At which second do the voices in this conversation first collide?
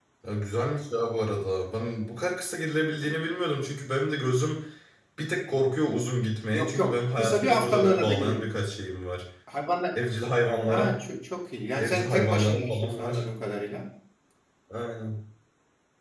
7 s

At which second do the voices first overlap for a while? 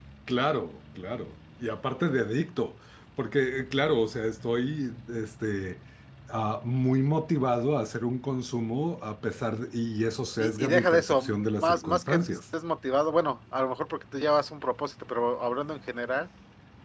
10 s

